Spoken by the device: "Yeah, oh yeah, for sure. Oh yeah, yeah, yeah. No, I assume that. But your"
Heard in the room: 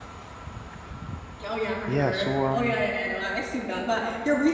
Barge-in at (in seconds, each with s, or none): 1.9 s